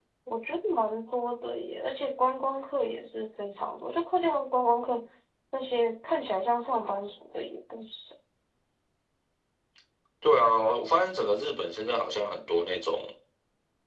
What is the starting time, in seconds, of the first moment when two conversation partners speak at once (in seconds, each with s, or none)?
none